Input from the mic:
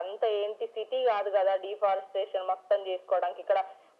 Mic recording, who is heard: echo only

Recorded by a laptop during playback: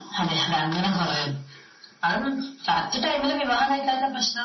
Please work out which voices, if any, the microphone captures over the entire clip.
echo only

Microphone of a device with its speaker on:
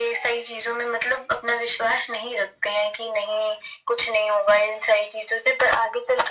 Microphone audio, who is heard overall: echo only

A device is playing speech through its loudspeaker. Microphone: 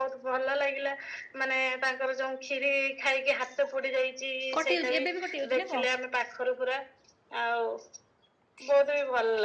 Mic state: both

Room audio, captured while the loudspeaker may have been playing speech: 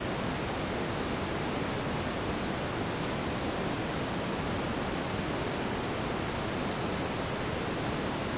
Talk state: neither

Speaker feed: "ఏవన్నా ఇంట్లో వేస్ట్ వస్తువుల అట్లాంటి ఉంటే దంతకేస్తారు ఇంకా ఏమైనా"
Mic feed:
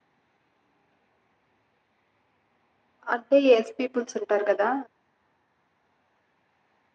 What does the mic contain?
user only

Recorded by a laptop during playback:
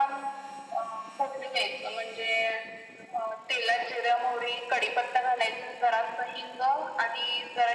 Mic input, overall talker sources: echo only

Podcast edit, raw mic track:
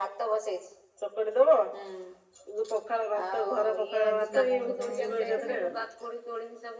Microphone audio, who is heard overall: both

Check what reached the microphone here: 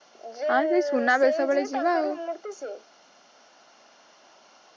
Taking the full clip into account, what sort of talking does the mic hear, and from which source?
both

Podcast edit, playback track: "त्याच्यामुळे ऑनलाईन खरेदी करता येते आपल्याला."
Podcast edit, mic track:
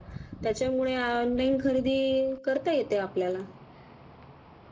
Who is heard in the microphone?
echo only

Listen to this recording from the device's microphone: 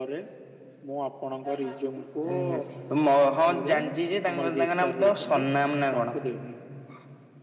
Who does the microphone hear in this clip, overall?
echo only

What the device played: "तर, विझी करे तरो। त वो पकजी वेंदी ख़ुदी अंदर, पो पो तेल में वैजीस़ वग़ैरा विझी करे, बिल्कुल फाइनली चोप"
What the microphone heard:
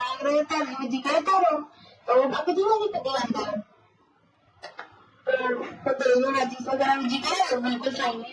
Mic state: echo only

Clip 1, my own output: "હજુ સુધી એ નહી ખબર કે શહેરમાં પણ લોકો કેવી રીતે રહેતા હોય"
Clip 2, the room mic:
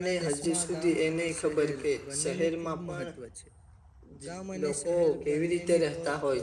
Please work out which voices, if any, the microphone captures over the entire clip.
both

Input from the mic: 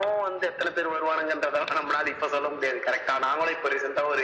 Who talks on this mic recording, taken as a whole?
echo only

